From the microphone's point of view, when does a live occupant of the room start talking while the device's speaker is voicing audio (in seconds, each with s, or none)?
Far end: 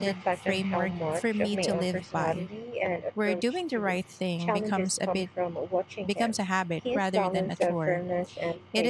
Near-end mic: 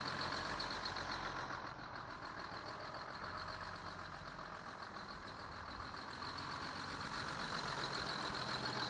none